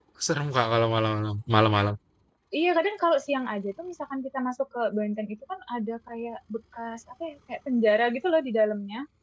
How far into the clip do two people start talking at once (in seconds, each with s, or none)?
none